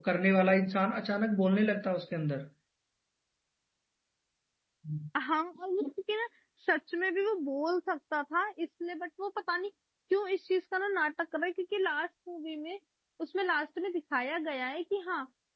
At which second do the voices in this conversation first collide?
none

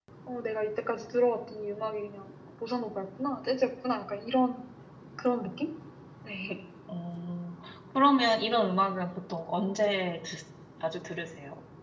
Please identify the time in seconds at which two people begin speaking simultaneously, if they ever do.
none

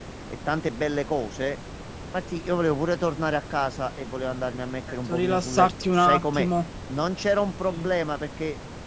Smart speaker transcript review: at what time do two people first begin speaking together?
5 s

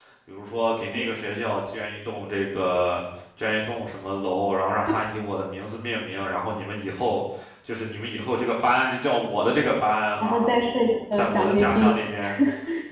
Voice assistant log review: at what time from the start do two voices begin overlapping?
10 s

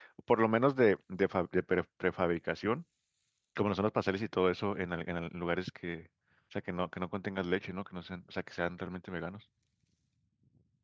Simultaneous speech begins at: none

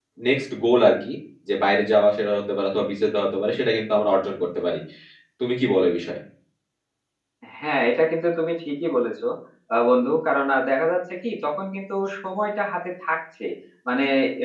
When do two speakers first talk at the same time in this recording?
none

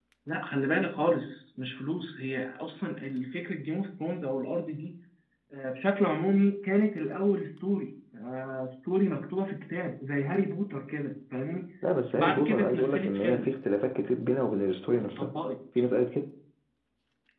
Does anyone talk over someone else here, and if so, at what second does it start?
12 s

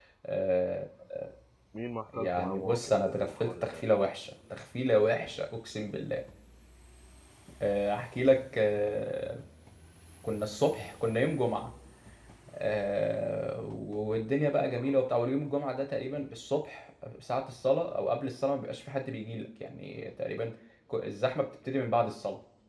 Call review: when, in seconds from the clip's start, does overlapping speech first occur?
2 s

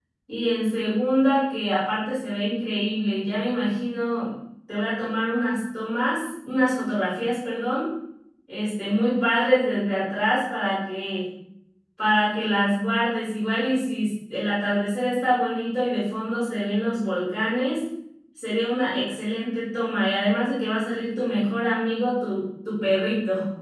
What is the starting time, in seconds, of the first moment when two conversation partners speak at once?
none

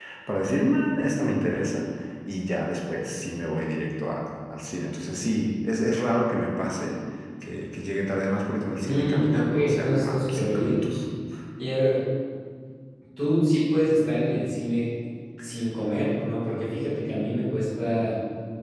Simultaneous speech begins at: 9 s

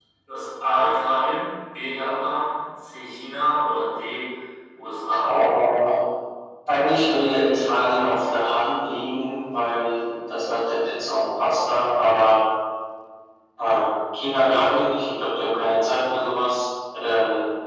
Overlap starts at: none

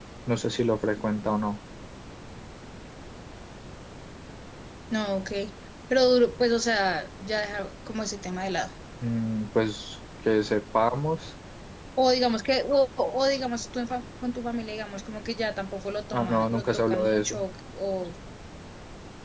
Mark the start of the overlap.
16 s

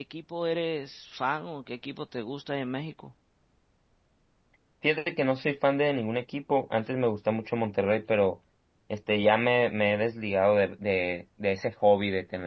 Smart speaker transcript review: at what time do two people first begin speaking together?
none

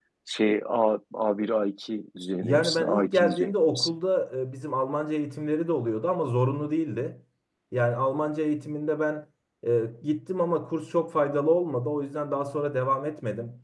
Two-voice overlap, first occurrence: 2 s

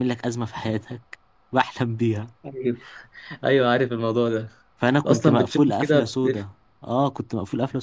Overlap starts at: 5 s

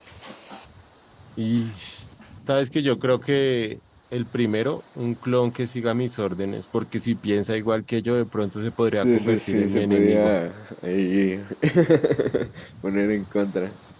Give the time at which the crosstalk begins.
9 s

